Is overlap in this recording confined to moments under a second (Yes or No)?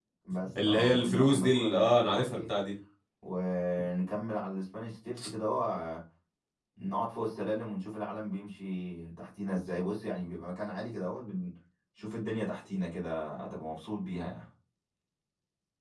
No